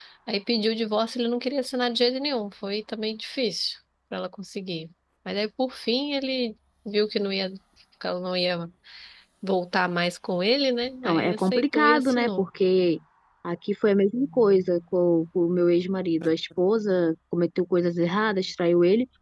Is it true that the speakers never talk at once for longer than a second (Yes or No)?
No